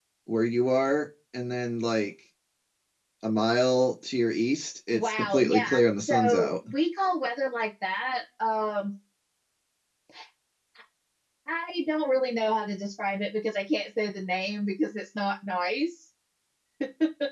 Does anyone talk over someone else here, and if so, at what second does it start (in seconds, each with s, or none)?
4.9 s